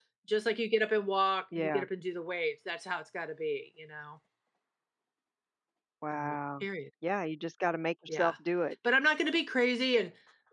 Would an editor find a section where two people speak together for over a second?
No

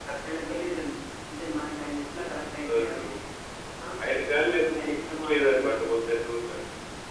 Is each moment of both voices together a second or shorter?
No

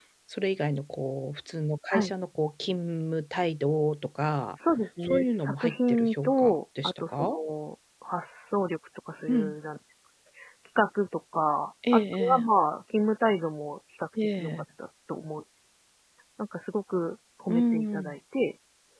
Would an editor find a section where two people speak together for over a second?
Yes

